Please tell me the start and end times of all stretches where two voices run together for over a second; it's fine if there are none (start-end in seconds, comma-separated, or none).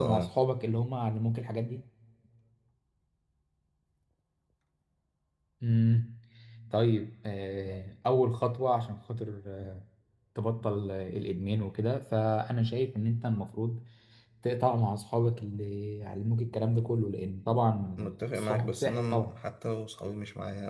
18.0-19.4